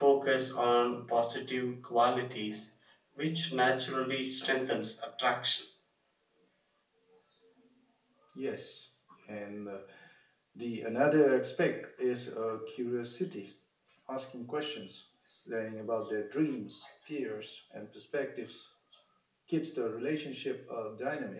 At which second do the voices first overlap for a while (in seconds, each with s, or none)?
none